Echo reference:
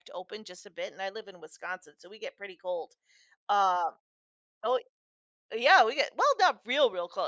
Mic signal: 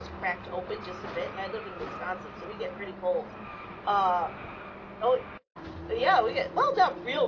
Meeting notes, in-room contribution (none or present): none